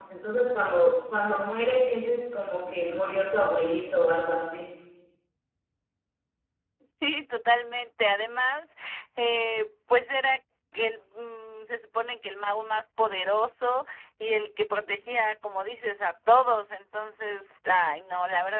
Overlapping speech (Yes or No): No